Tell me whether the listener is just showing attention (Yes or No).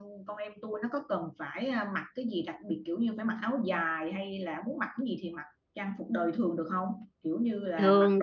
Yes